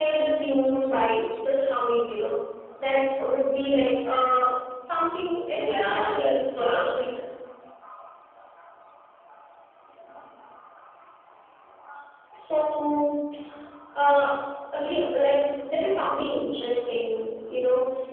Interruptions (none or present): present